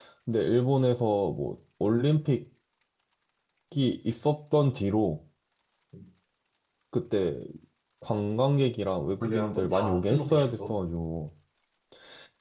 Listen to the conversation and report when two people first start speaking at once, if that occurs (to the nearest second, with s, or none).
9 s